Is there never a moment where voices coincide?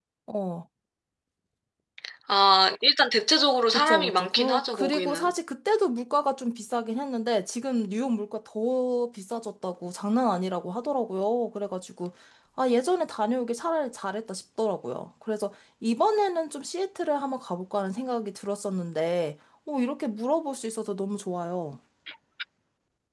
No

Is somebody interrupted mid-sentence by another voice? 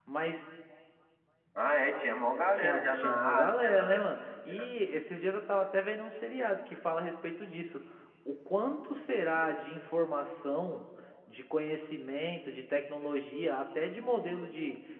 Yes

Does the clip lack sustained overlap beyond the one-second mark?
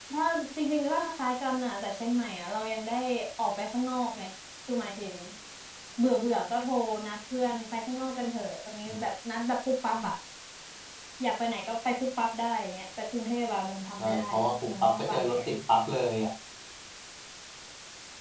No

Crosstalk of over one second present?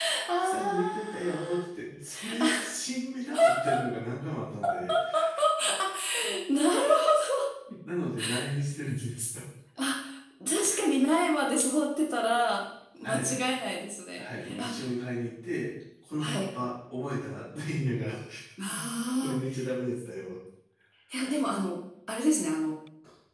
Yes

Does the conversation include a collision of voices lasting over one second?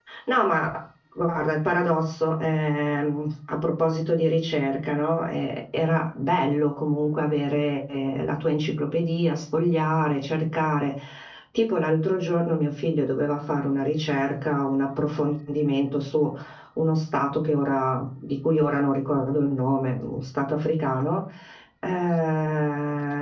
No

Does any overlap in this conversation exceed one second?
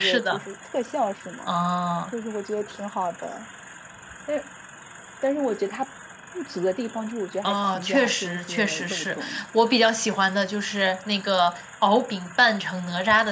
Yes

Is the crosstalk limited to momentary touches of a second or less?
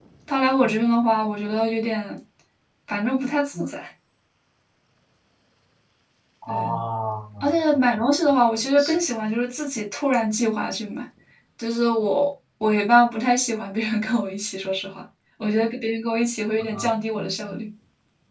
Yes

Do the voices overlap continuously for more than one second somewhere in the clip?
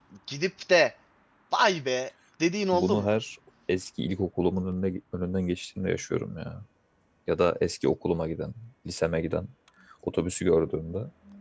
No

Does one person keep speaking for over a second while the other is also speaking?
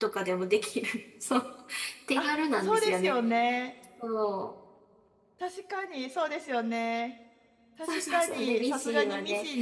Yes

